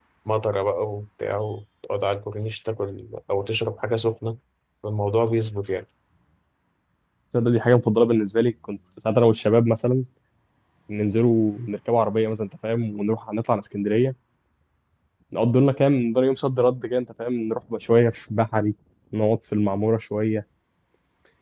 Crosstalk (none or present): none